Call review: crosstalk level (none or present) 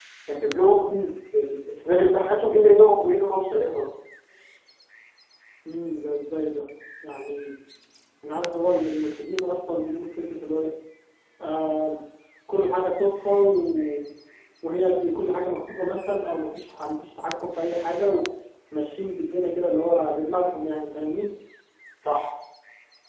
none